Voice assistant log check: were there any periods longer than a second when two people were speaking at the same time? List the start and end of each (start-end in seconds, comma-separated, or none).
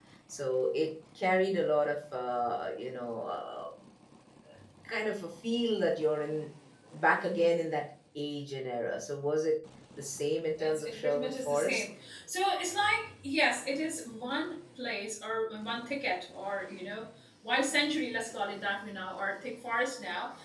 10.6-11.8